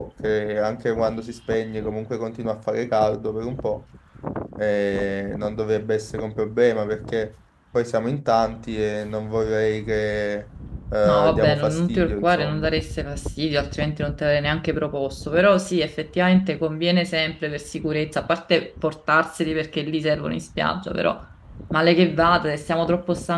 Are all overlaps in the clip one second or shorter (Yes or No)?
No